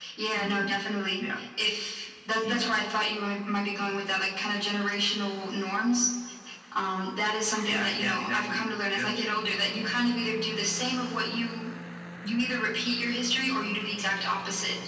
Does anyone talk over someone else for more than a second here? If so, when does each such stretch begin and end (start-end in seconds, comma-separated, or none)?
7.7-9.1